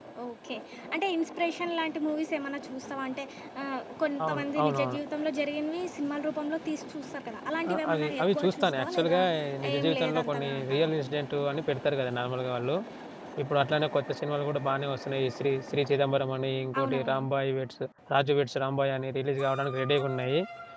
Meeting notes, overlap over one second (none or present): present